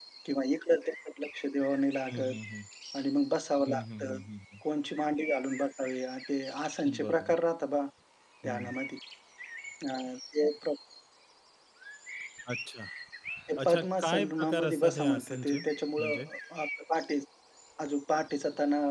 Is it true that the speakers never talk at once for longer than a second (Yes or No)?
No